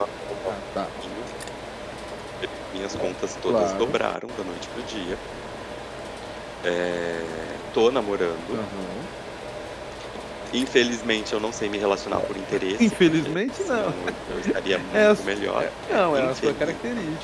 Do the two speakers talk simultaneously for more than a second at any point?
Yes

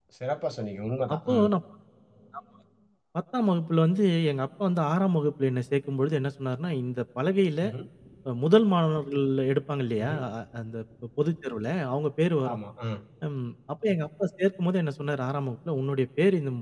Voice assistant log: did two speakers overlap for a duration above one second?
No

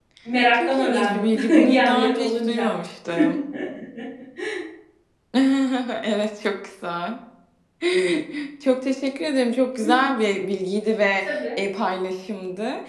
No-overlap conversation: No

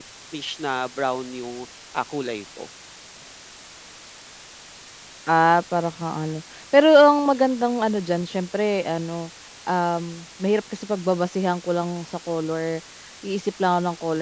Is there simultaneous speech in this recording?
No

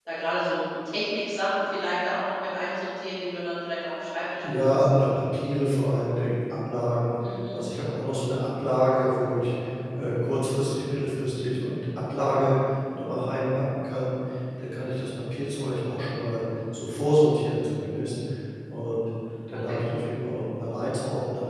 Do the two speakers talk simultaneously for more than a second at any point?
No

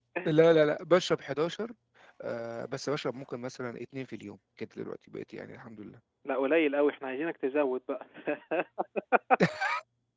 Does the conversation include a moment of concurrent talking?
No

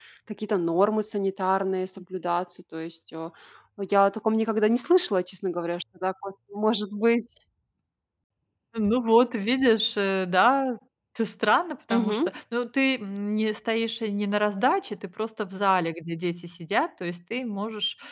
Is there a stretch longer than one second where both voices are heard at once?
No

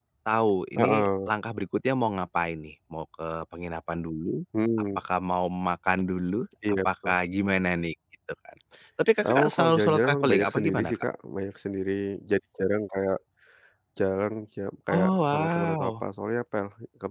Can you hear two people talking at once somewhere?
Yes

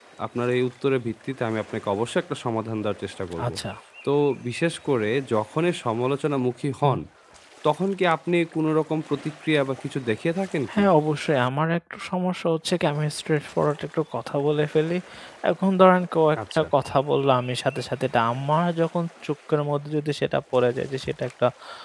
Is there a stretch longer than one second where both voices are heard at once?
No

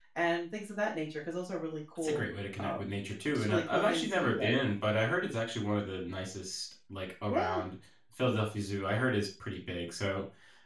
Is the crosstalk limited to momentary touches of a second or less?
No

